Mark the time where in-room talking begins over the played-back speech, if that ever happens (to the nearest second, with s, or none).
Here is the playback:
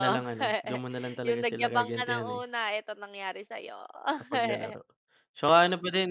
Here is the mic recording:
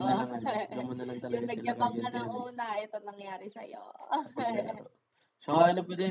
none